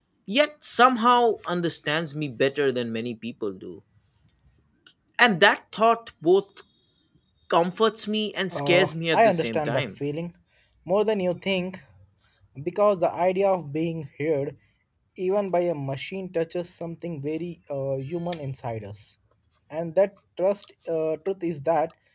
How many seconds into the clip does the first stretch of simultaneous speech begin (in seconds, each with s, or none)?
8.5 s